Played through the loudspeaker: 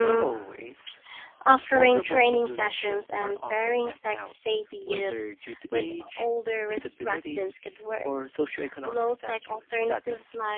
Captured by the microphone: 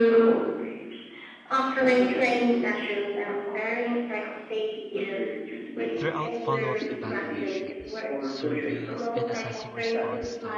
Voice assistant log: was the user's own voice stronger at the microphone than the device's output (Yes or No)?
No